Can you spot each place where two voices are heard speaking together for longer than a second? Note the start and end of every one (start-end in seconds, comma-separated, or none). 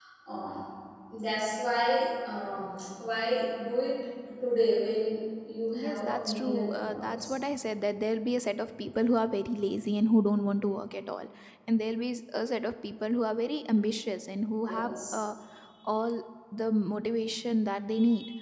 5.7-7.3